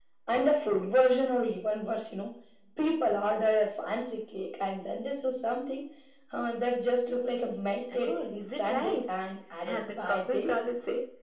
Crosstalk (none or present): present